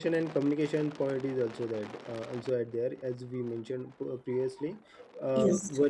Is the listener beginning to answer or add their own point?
No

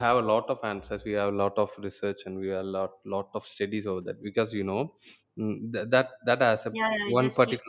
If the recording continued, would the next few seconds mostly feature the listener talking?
Yes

